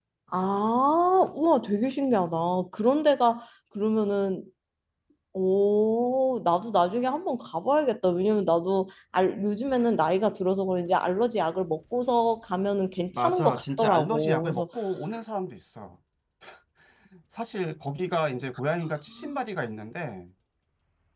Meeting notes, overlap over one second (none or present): present